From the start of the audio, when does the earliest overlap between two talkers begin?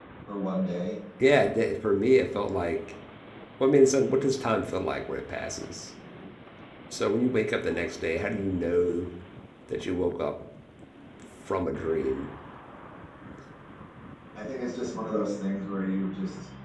none

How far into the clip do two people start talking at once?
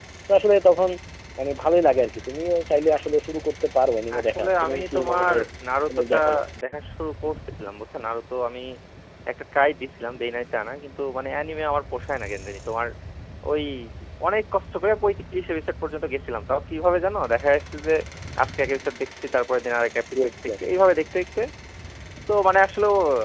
4.1 s

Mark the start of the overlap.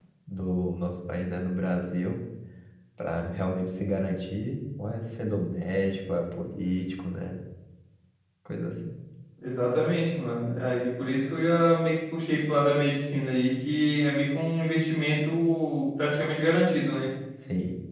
none

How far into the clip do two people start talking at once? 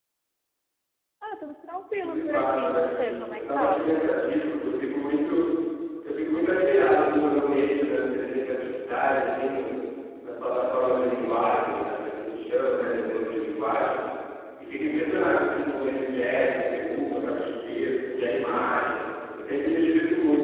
2.0 s

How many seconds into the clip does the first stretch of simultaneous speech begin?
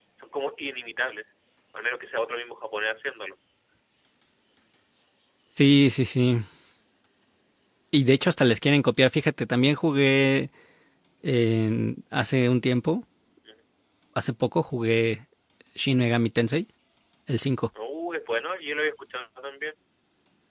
none

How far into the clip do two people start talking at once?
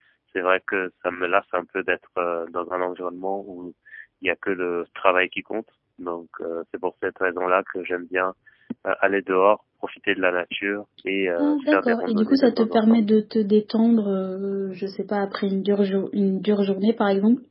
11.4 s

